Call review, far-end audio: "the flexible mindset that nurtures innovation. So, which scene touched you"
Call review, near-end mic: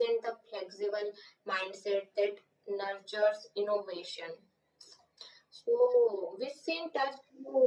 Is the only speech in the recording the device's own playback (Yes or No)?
Yes